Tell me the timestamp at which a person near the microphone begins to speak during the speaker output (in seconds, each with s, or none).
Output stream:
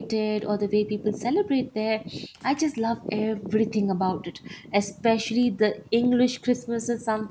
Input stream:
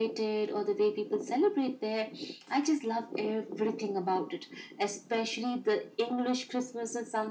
none